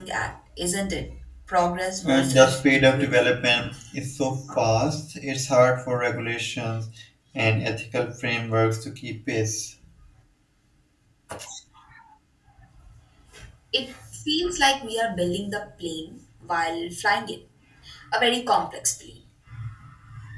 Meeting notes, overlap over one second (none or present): present